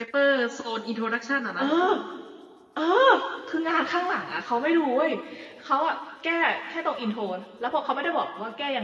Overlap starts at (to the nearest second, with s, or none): none